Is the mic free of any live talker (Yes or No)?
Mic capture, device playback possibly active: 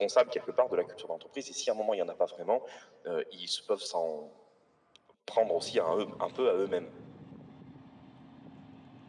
Yes